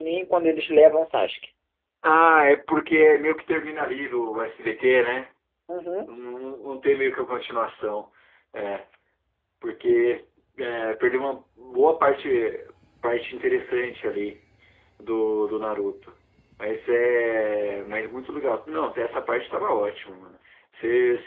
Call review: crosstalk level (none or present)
none